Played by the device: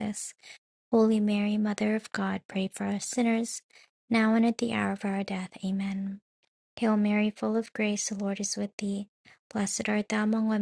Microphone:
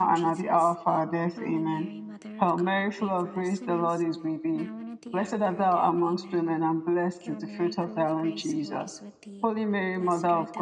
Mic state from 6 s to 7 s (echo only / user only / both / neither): both